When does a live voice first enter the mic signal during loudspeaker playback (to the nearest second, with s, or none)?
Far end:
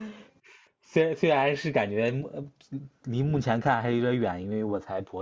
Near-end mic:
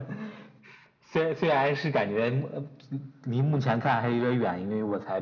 none